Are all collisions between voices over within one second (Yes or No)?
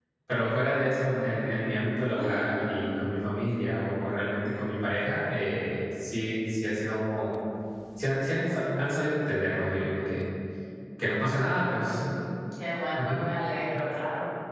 Yes